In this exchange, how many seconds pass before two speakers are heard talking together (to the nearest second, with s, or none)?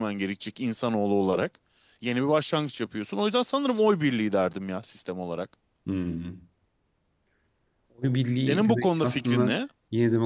8 s